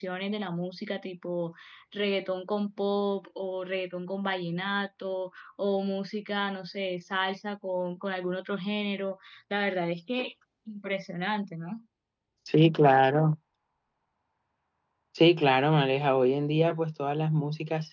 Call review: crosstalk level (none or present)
none